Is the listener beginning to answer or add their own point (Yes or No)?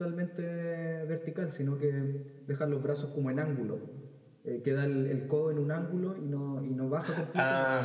No